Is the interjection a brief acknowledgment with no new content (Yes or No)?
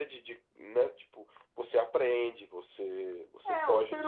No